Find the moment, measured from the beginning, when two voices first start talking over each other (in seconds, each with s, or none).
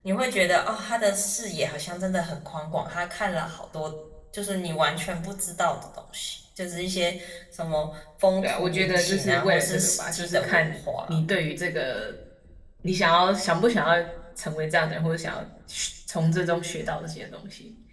8.4 s